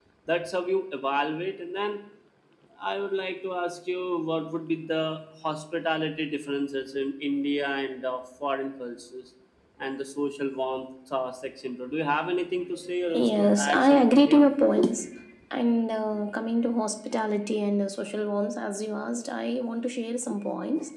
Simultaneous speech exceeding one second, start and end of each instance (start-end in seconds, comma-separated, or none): 13.1-14.5